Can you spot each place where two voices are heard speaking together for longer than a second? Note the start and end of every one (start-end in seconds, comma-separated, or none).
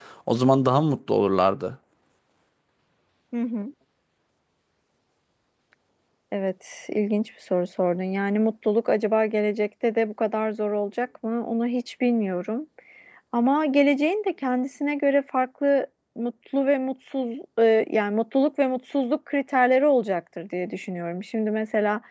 none